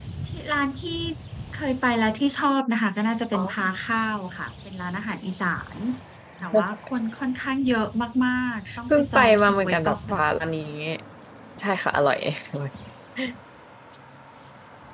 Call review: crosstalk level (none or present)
present